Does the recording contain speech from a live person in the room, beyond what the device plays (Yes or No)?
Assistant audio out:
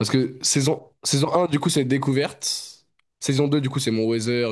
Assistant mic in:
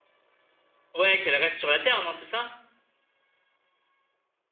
Yes